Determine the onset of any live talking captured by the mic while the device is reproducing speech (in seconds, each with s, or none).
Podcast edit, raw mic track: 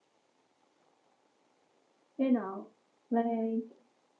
2.2 s